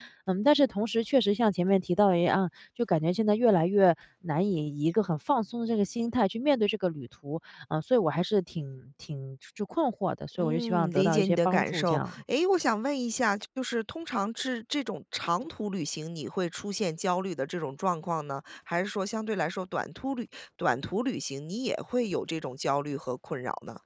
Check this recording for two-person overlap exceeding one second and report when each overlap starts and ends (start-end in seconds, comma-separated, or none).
10.4-12.2